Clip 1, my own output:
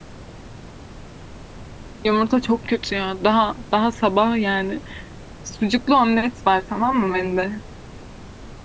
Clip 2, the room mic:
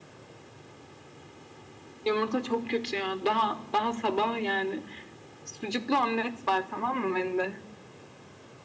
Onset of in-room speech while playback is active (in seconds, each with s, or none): none